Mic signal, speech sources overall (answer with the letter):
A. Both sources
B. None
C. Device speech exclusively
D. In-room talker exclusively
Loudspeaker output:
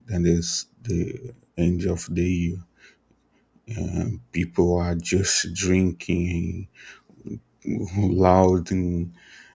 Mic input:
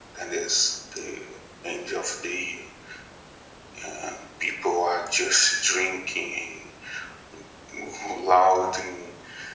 C